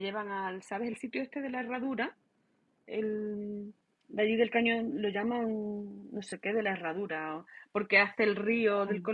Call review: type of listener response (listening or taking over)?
listening